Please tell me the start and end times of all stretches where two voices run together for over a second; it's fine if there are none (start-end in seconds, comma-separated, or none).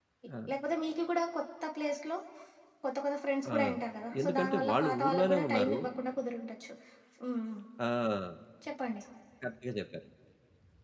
4.2-5.8